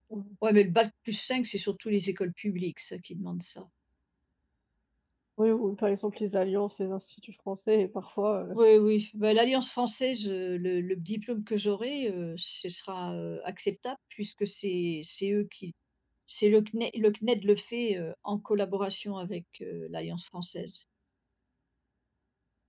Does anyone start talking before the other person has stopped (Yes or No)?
No